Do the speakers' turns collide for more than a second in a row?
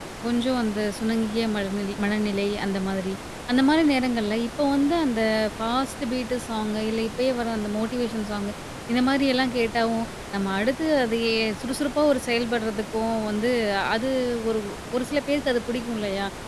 No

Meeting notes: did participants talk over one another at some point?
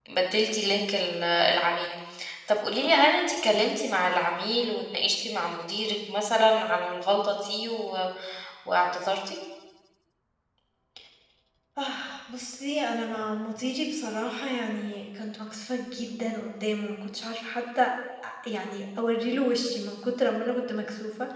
No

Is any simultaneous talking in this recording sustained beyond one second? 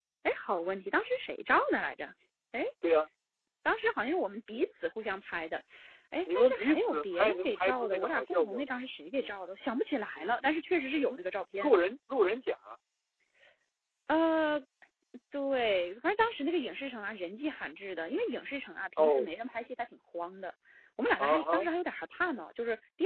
Yes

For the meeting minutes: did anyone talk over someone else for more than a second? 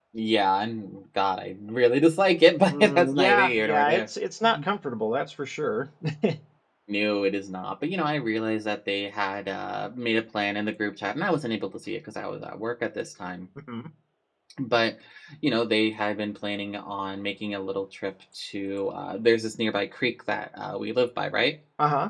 Yes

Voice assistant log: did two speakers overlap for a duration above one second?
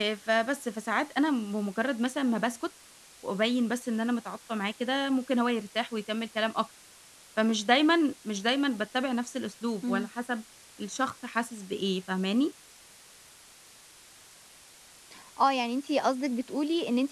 No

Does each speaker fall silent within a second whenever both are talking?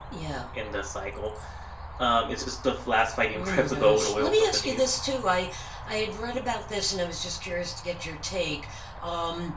No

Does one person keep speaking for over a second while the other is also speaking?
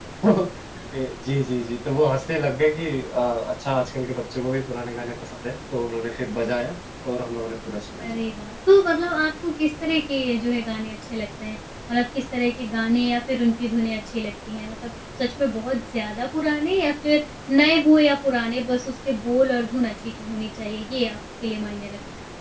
No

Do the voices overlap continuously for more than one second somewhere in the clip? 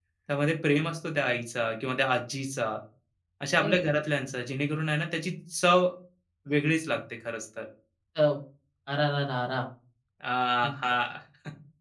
No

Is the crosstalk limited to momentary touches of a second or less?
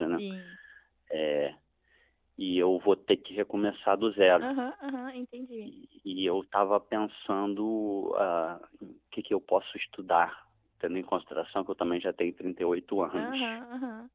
Yes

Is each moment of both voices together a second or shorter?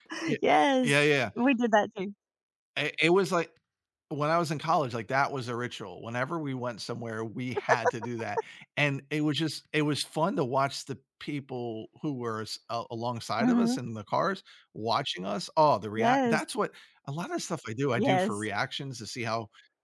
Yes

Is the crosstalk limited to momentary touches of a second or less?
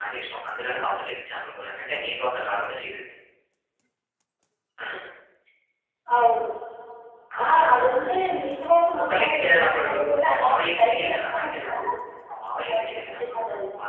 No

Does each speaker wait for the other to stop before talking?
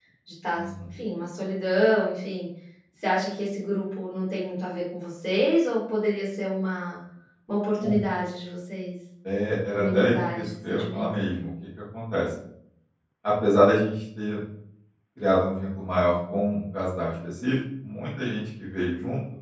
No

